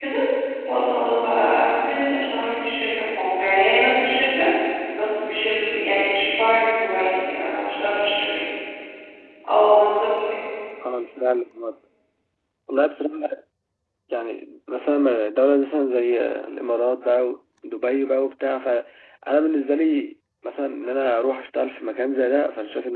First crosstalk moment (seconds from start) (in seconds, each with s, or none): none